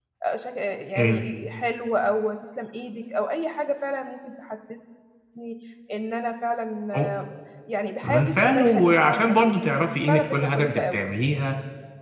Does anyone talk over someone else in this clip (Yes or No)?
Yes